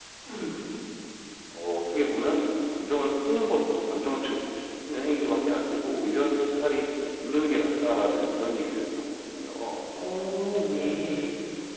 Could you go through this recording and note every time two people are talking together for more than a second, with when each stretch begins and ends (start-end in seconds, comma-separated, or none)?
none